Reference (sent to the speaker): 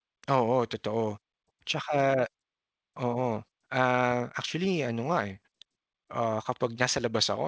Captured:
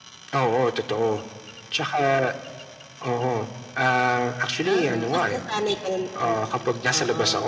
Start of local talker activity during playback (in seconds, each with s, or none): 4.6 s